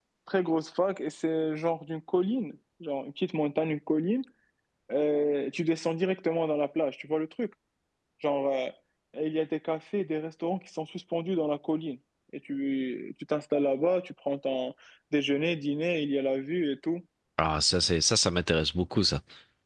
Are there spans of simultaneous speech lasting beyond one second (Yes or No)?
No